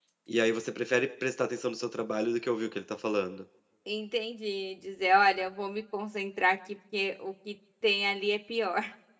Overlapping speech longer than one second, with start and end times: none

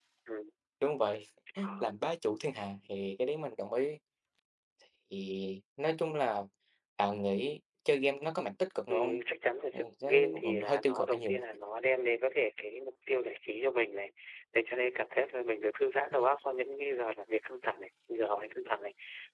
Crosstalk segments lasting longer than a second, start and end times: 9.7-11.4

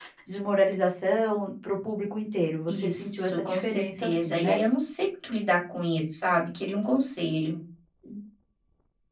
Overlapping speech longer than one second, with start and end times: 2.7-4.6

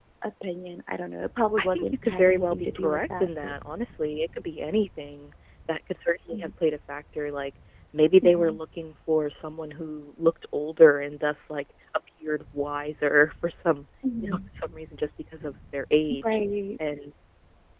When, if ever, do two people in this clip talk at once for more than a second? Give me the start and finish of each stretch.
1.6-3.5

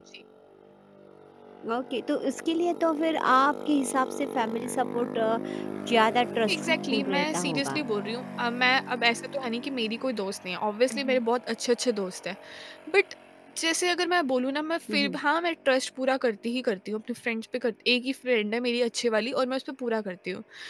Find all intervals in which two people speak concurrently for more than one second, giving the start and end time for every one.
6.5-7.8

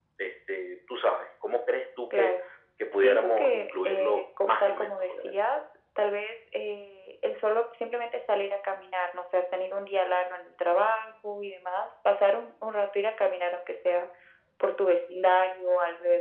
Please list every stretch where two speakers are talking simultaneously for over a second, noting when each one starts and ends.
3.0-5.3

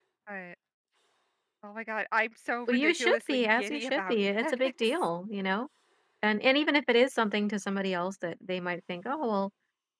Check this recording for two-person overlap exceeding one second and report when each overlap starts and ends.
2.7-5.1

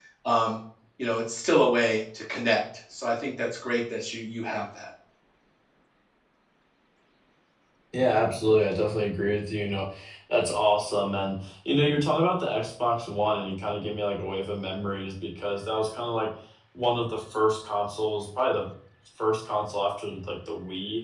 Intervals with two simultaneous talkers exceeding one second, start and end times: none

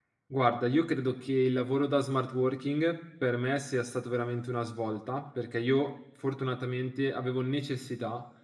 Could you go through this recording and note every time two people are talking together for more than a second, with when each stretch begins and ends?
none

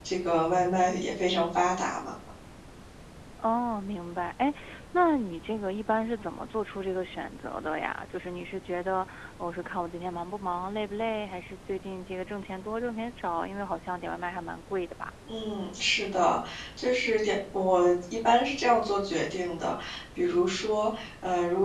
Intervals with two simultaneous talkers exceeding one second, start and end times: none

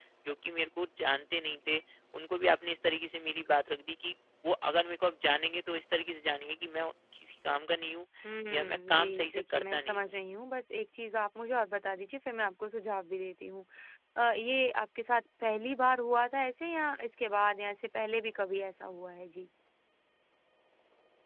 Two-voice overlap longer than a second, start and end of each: 8.5-10.1

